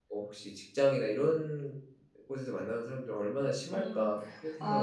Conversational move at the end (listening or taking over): taking over